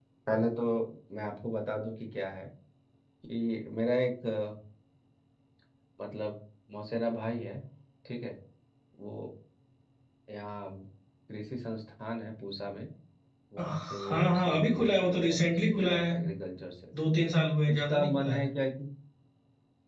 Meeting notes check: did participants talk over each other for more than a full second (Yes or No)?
Yes